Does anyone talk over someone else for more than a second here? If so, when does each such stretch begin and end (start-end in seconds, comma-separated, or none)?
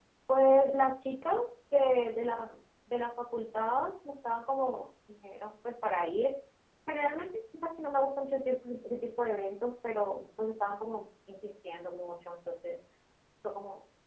none